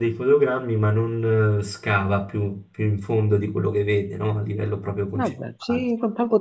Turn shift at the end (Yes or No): Yes